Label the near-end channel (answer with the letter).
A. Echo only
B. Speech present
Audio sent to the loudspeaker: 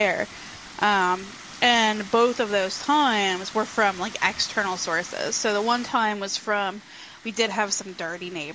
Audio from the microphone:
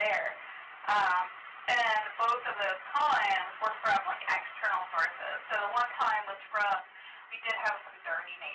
A